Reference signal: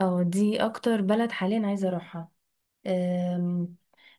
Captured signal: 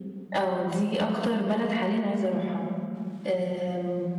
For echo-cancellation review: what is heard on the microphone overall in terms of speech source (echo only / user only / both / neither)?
echo only